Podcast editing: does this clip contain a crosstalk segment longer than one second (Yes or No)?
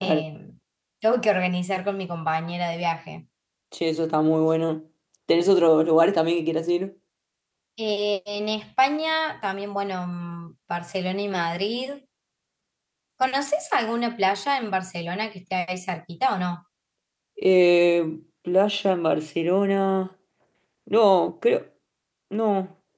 No